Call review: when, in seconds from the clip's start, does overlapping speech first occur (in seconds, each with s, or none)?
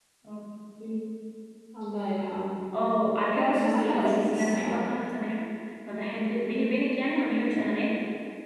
3.2 s